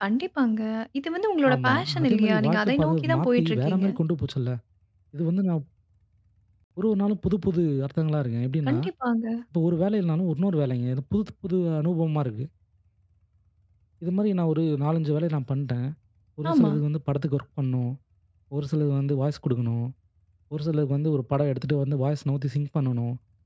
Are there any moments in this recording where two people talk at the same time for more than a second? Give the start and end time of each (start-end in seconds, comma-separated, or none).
1.5-3.8